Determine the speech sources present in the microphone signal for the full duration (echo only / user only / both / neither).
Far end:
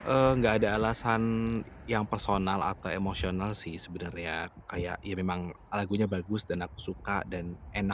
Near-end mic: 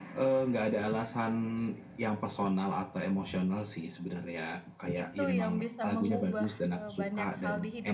both